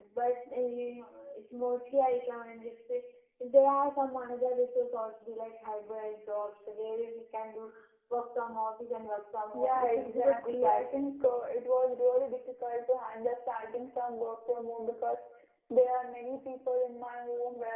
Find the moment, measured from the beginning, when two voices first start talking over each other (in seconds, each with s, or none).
9.5 s